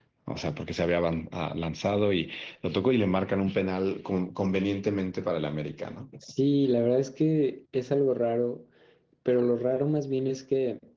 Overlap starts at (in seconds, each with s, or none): none